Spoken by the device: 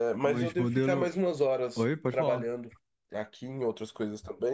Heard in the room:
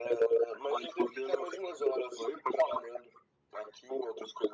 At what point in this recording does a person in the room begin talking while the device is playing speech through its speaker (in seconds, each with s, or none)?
none